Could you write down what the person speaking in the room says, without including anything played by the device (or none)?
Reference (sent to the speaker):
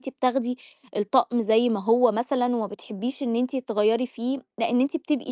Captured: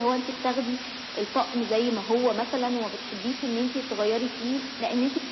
none